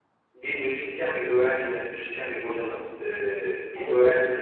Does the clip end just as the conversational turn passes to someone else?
No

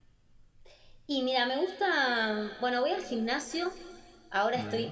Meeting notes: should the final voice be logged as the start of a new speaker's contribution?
No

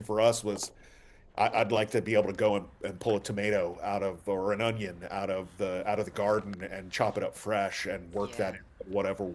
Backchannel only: Yes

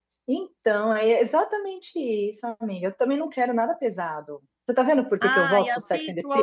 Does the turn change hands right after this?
Yes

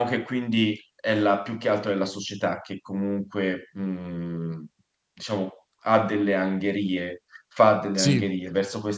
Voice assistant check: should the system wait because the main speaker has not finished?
Yes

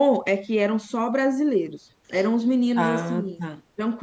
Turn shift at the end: No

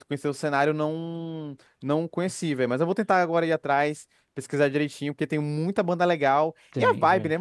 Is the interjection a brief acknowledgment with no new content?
Yes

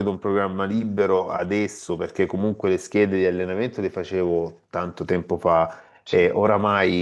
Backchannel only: Yes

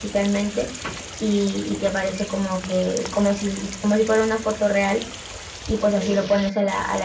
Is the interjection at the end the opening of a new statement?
No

